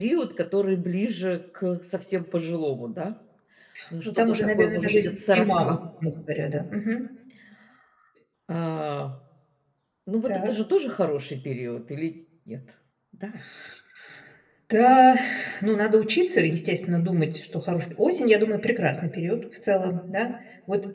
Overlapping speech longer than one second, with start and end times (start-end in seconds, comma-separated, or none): 4.0-5.8